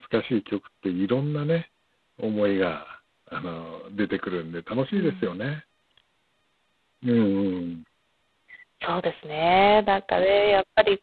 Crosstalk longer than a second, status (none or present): none